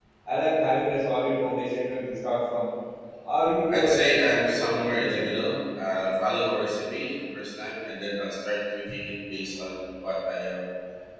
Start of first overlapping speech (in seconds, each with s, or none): 3.7 s